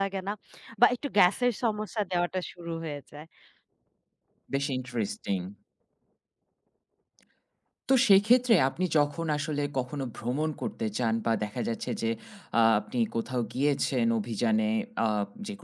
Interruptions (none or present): none